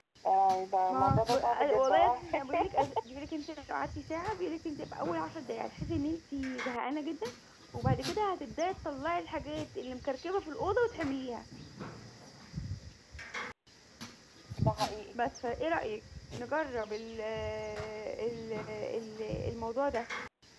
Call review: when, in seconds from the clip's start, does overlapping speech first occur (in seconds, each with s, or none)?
0.9 s